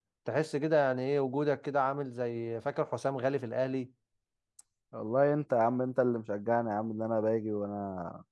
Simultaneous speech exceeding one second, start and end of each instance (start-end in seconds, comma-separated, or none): none